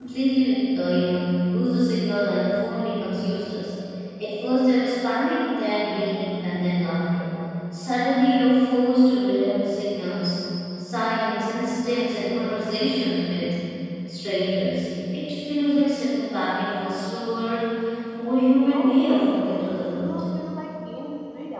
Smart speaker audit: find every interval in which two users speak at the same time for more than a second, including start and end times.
18.7-20.2

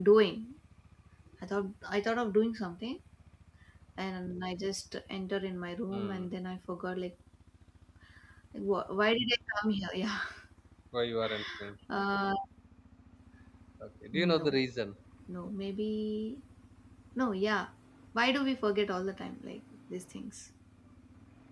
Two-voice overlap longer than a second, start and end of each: none

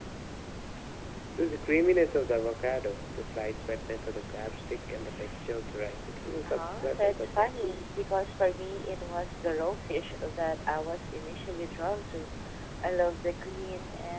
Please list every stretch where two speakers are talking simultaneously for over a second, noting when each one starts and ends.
6.5-7.7

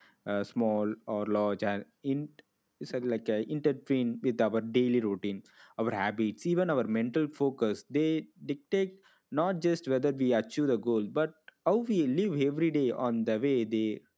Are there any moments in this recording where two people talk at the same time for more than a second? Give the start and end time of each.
none

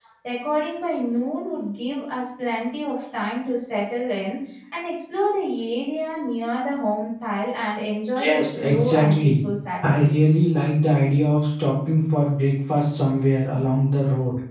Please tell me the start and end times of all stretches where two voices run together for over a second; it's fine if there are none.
8.2-9.4

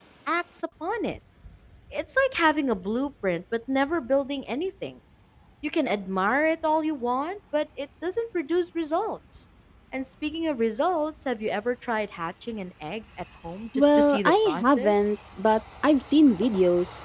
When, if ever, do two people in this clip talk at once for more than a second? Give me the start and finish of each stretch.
13.8-15.1

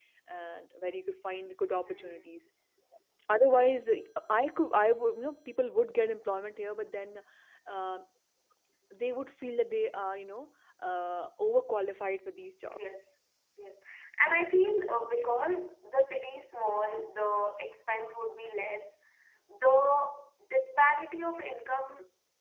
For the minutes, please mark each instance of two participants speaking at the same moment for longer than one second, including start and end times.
none

